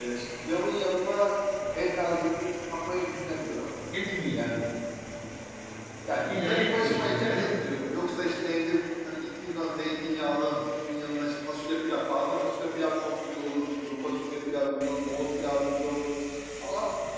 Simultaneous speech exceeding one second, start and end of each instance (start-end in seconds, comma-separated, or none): 6.2-7.6